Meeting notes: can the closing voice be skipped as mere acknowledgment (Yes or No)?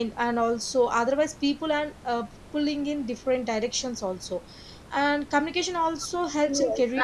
No